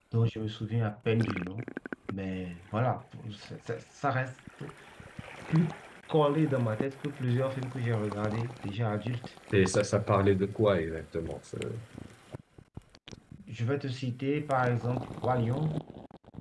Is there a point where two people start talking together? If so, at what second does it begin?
none

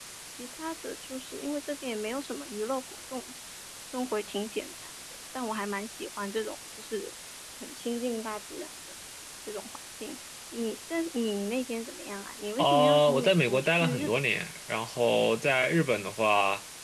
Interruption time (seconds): 13 s

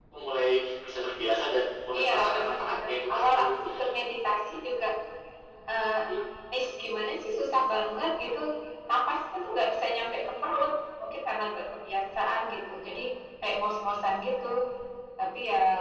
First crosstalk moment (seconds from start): 2 s

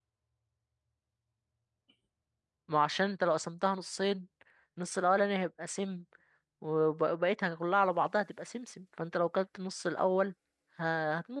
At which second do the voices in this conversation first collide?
none

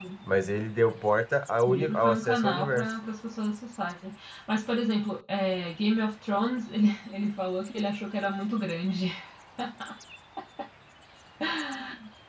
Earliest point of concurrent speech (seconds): 2 s

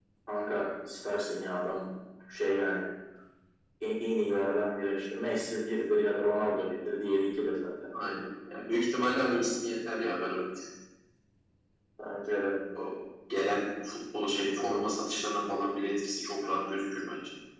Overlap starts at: none

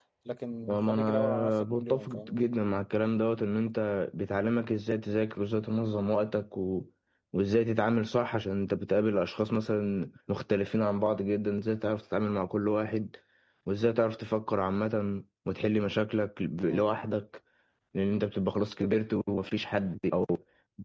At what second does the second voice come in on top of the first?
1 s

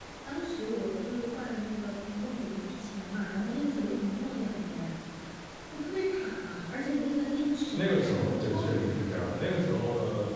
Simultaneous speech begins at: 8 s

